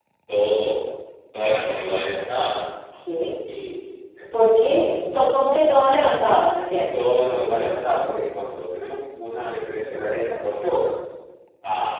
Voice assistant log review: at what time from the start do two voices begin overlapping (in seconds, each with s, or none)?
none